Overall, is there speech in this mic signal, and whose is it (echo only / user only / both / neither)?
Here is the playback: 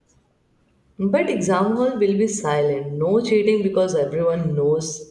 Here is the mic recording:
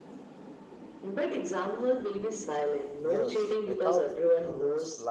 both